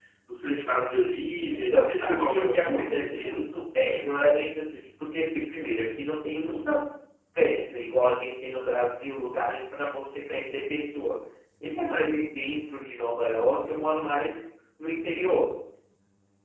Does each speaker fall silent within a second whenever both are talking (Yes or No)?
No